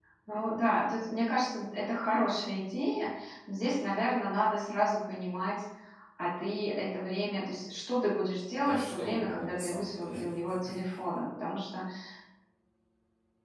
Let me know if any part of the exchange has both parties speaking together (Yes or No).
Yes